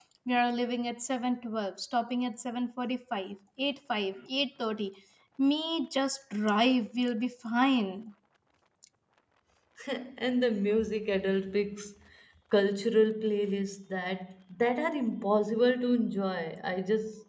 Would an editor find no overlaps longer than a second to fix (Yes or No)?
Yes